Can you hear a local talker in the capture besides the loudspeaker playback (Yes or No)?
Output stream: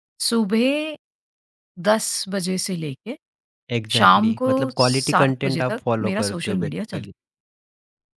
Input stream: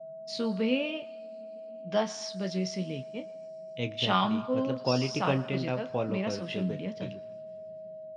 No